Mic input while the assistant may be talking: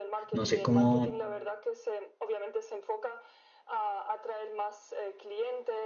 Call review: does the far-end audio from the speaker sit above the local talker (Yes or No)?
No